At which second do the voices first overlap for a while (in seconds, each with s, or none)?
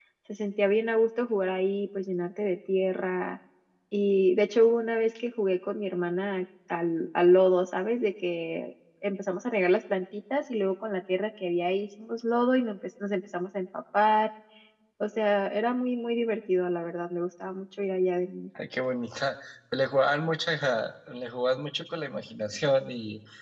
none